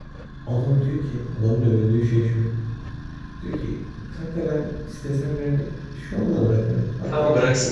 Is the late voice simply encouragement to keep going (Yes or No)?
No